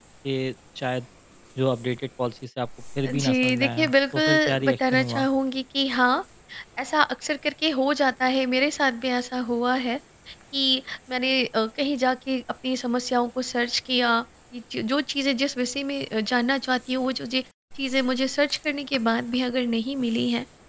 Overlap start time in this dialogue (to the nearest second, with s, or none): 3 s